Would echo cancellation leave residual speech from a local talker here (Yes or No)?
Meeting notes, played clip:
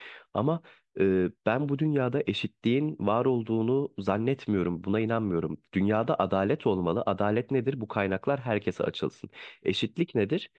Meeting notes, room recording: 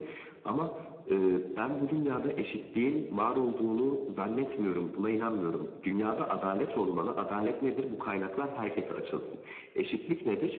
No